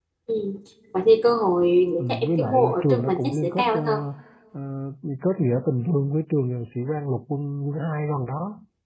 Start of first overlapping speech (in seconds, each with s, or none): 2.0 s